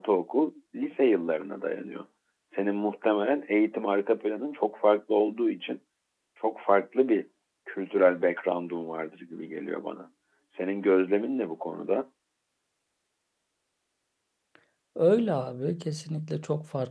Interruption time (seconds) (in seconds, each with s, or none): none